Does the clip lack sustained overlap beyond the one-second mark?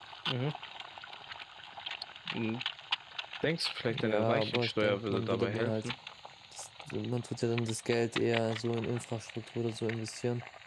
No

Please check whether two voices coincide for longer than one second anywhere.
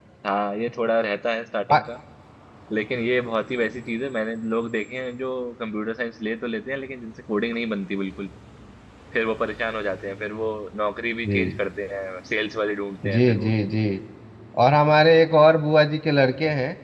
No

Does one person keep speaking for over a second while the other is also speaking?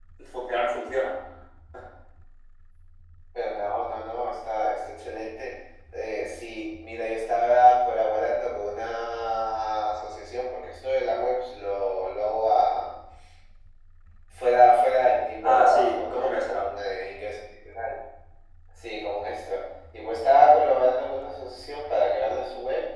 Yes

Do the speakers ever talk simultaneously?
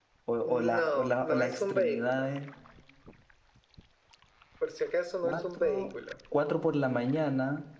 Yes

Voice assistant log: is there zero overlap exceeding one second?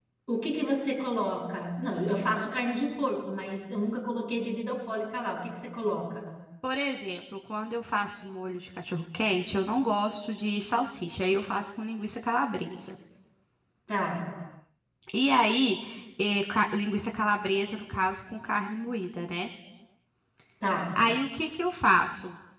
Yes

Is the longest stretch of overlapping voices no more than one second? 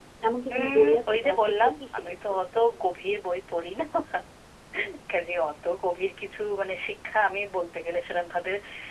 No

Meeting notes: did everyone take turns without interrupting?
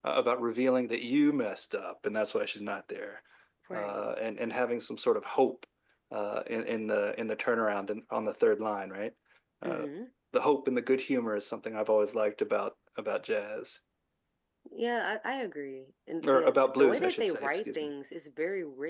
No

